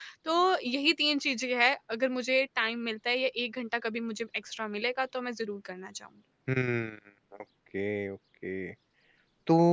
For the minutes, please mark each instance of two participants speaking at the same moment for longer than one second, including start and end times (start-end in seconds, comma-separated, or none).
none